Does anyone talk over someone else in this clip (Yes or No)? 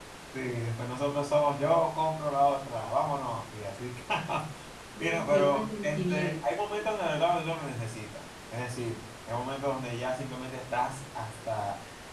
Yes